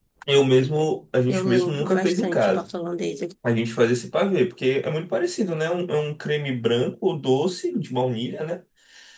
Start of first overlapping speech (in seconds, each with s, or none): 1.3 s